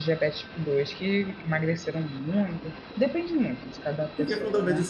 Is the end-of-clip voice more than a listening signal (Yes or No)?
Yes